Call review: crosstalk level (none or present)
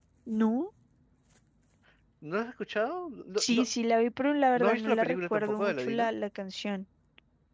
present